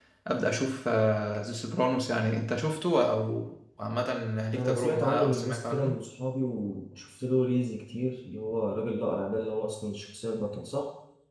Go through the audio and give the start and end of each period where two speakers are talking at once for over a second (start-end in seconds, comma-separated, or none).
4.5-6.0